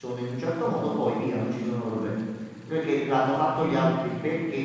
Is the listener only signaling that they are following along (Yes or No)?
Yes